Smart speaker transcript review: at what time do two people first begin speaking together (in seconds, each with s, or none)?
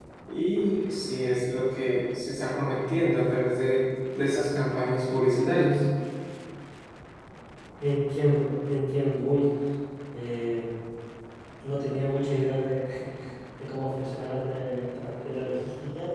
none